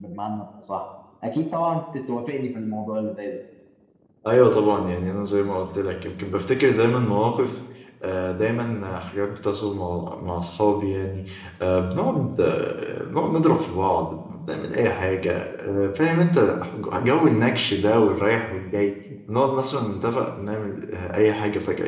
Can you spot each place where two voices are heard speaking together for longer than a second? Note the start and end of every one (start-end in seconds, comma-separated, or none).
none